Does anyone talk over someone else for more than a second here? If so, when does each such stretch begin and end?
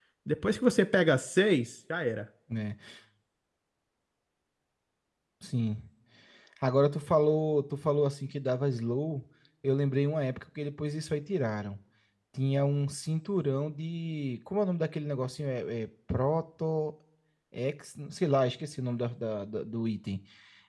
none

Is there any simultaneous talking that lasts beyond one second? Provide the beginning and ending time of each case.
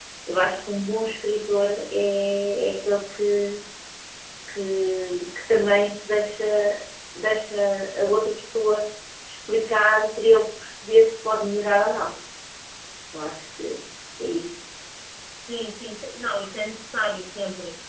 none

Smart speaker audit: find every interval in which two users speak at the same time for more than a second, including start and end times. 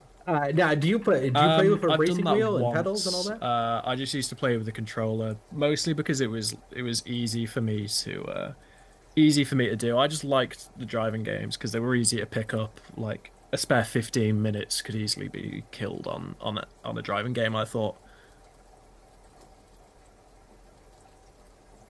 1.3-3.3

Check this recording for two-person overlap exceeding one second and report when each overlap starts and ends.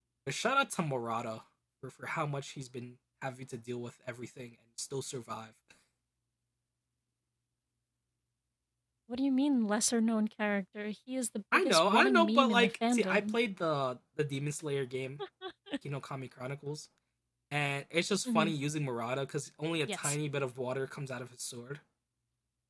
11.5-13.4

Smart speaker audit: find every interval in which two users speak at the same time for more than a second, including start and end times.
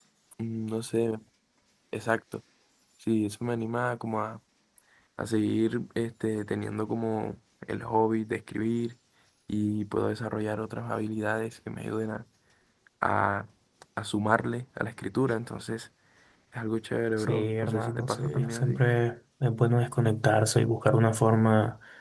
17.2-18.8

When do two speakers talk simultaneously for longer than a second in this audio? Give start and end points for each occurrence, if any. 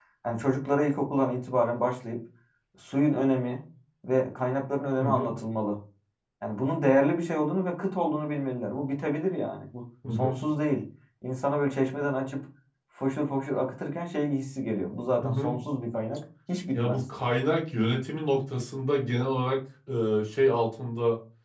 none

